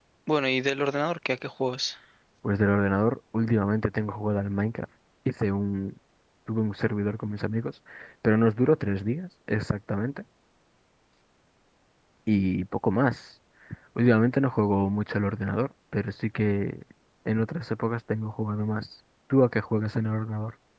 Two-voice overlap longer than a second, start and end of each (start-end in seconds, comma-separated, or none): none